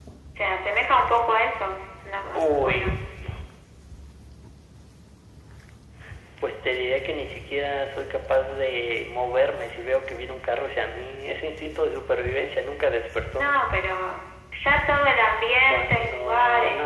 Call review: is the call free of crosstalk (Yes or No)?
No